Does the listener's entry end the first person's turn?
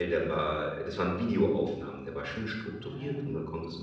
No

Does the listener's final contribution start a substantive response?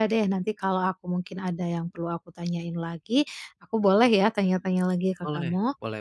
Yes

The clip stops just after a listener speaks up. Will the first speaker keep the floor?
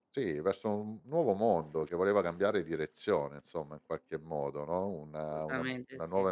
Yes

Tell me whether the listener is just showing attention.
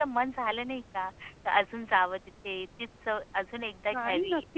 No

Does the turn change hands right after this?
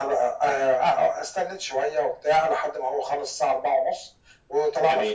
No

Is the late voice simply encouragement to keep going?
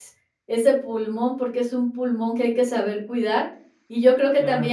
Yes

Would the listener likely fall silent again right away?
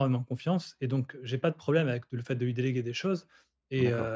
Yes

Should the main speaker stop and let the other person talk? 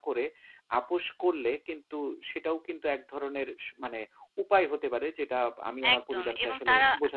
Yes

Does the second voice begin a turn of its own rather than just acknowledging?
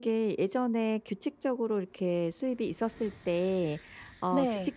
No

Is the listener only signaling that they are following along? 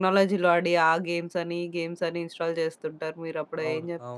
No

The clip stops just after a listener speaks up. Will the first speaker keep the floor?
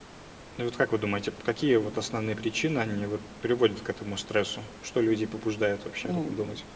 No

